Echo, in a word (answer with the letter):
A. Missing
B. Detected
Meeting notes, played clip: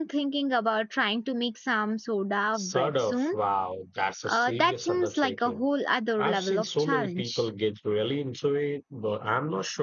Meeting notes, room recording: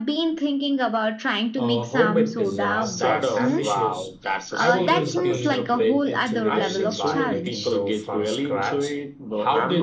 B